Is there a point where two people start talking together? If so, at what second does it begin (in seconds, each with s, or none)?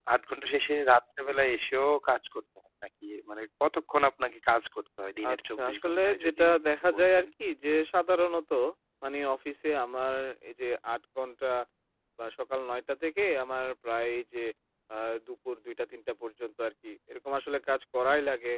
5.2 s